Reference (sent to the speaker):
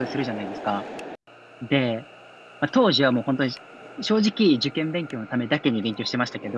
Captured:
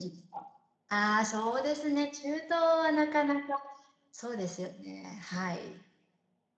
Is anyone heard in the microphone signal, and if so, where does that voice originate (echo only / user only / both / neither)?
user only